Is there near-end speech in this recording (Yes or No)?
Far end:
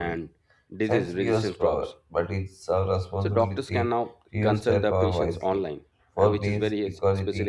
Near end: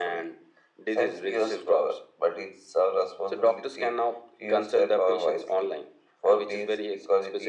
No